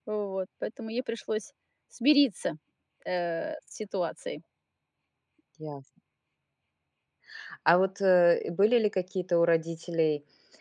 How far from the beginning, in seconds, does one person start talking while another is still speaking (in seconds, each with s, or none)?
none